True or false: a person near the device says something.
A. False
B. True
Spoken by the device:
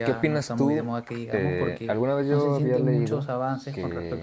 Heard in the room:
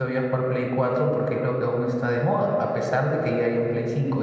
B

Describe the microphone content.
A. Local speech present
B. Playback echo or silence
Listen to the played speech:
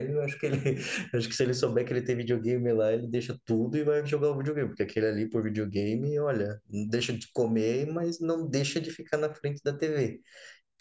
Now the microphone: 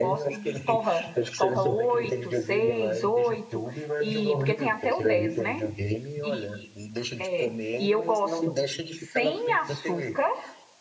A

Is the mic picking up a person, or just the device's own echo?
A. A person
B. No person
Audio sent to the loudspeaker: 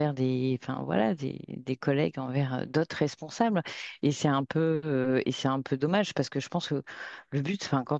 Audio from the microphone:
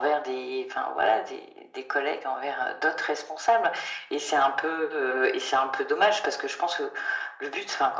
B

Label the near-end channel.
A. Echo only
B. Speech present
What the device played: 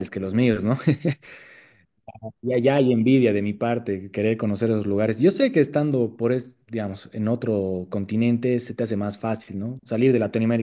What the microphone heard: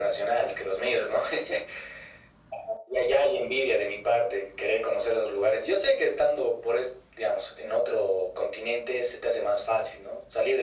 A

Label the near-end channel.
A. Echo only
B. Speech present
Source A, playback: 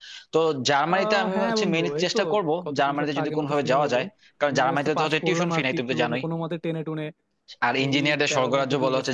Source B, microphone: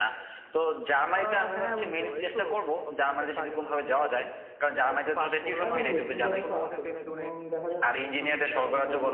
B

